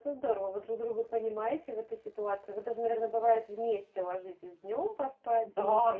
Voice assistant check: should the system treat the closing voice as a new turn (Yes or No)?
Yes